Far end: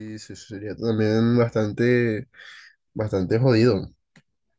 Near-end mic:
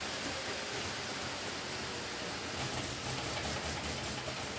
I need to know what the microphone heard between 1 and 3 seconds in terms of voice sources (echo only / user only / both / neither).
neither